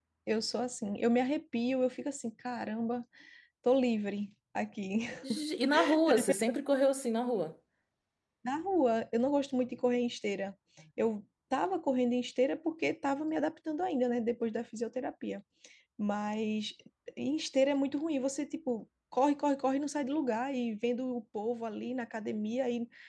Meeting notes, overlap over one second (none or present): none